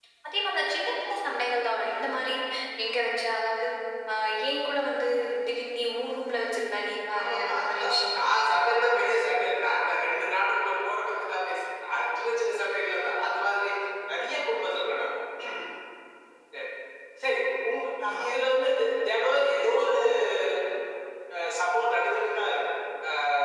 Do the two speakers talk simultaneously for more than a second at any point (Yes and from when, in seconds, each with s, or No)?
Yes, from 7.2 s